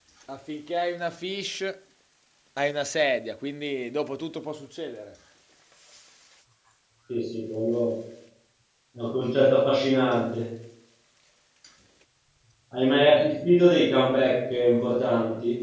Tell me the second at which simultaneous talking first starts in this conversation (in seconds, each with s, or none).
none